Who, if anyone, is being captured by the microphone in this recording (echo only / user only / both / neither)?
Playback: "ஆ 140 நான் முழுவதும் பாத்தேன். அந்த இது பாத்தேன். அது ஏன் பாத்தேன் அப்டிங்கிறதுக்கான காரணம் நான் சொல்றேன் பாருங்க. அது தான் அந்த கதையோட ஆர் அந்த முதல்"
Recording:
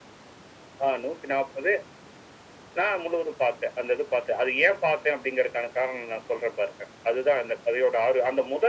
echo only